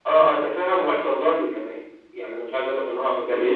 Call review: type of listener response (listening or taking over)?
listening